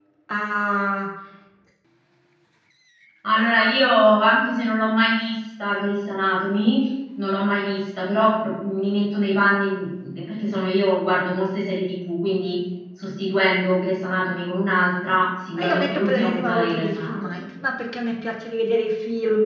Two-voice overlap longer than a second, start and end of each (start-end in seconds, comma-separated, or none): 15.6-17.4